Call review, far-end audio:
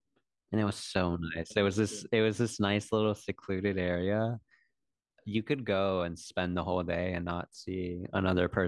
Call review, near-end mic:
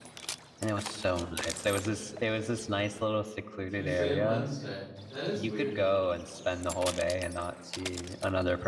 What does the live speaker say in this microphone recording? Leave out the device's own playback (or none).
Tuesday and Wednesday. That is weird.